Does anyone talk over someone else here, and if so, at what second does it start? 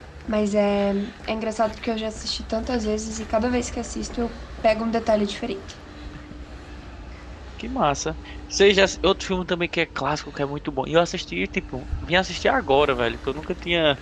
none

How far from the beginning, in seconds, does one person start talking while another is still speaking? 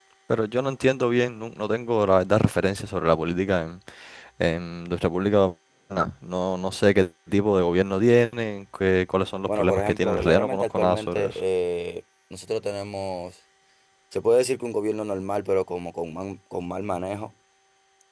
9.5 s

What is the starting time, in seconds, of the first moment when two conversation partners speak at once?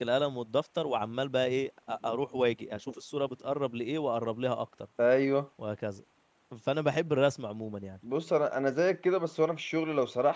none

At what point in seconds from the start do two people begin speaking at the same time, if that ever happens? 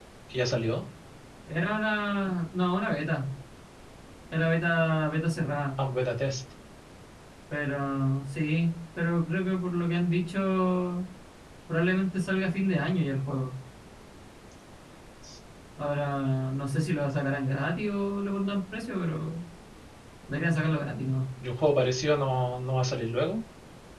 none

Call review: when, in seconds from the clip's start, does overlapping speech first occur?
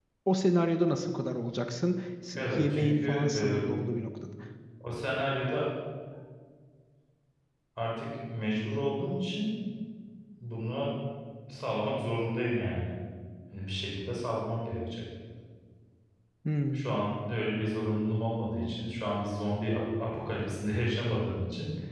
2.3 s

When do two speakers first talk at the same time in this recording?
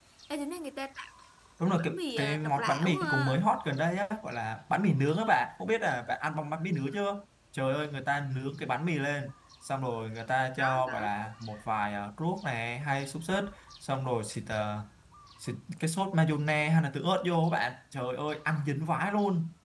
1.8 s

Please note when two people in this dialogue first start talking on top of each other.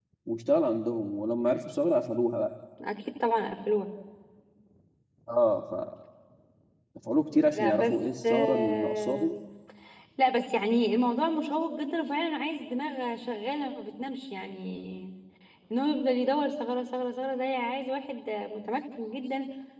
7.3 s

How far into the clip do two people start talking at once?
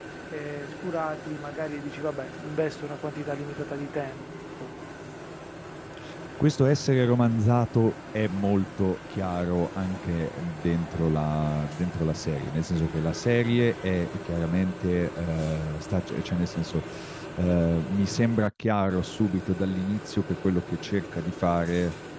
none

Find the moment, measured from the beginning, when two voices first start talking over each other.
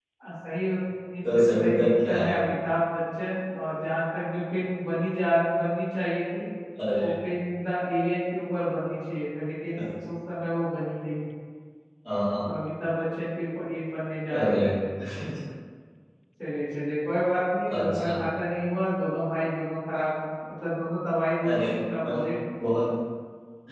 1.2 s

